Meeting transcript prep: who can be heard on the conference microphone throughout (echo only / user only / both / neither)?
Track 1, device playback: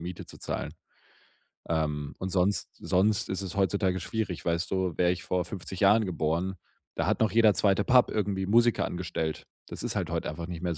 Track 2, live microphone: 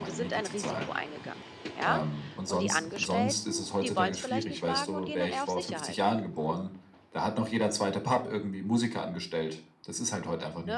both